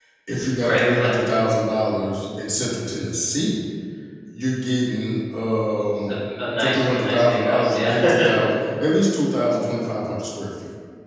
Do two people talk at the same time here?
Yes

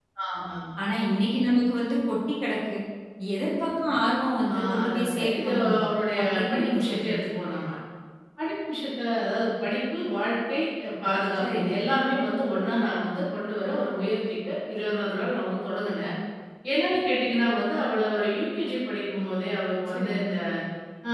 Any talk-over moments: Yes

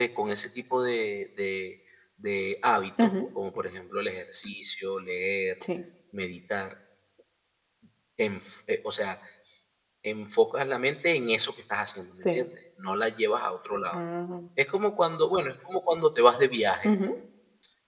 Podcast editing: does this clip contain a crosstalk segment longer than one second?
No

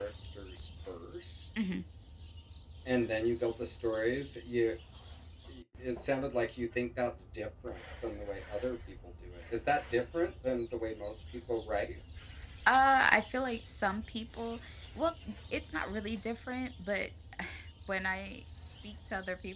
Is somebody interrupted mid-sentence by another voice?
No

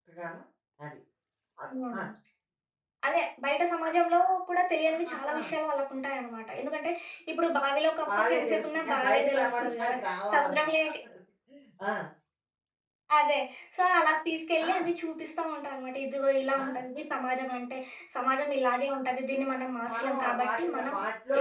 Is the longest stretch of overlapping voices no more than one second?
No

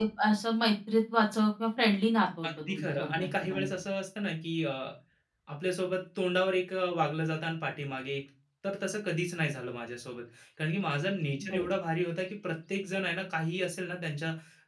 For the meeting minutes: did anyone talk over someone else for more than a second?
Yes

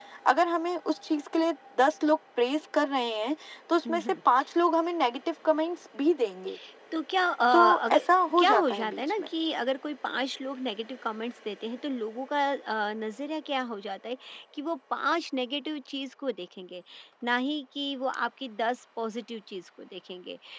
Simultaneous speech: Yes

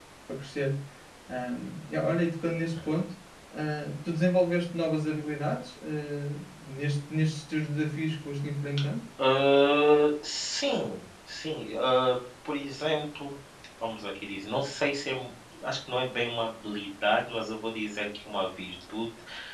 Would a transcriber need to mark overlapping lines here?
No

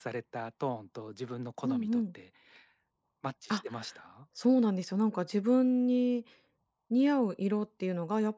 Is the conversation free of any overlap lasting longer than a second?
Yes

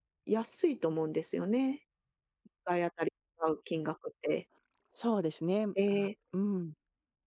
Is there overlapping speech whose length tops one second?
No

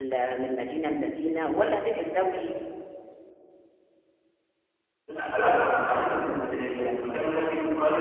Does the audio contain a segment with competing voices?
No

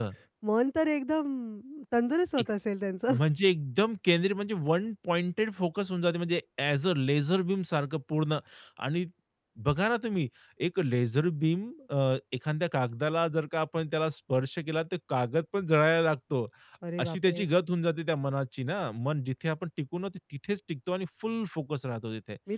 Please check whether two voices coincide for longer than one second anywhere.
No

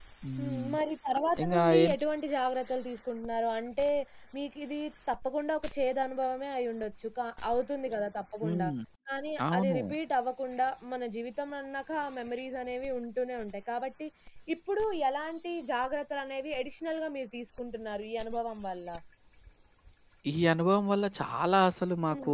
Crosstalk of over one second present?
No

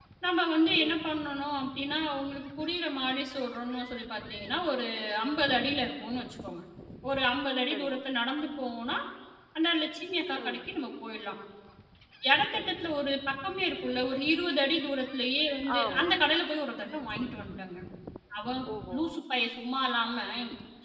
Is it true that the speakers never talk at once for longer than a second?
Yes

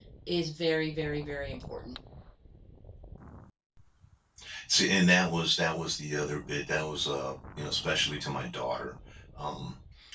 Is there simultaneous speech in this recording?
No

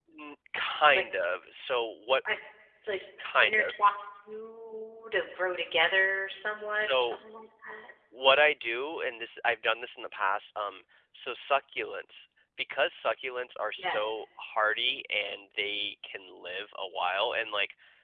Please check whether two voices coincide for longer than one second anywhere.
No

